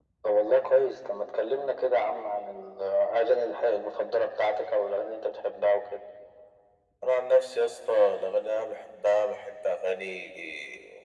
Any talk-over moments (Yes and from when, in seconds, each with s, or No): No